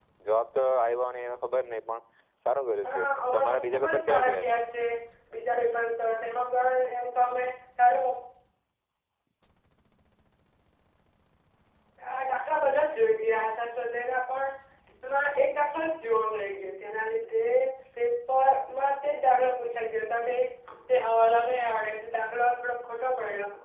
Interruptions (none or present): present